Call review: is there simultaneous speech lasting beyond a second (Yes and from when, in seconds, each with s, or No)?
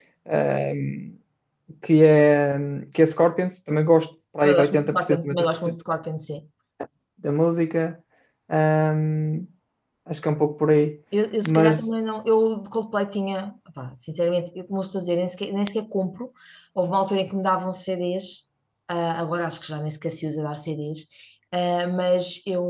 Yes, from 4.4 s